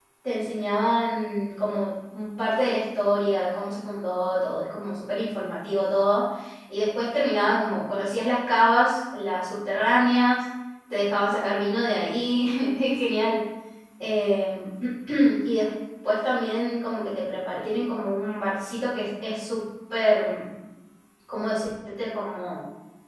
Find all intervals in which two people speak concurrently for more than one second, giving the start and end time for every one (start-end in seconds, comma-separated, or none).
none